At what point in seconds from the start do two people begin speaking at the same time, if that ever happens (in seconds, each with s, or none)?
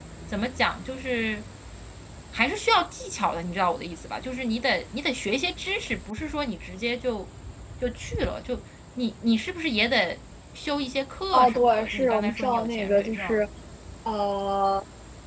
11.3 s